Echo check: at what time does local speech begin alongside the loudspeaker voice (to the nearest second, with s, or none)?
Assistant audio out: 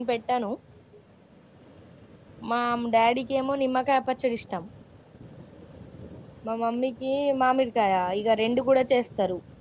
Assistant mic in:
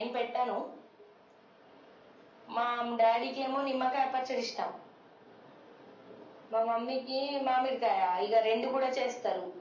none